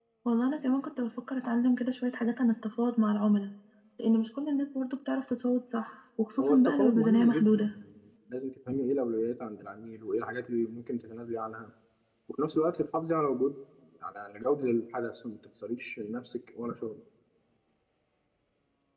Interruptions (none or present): present